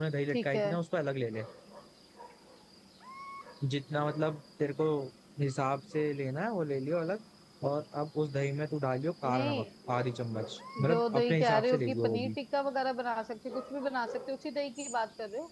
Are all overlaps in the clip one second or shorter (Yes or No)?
No